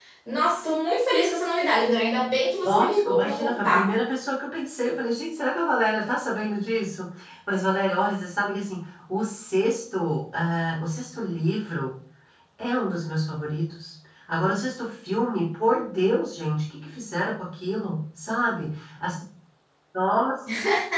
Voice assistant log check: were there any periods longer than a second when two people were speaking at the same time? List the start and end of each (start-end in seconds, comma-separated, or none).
2.6-3.9